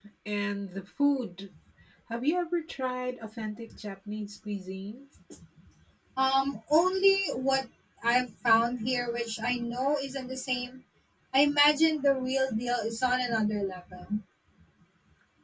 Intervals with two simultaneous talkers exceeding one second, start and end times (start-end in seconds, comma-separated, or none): none